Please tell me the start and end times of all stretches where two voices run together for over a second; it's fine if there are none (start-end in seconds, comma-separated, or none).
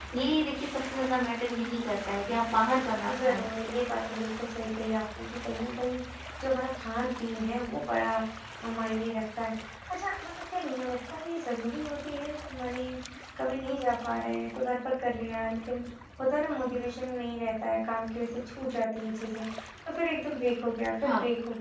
none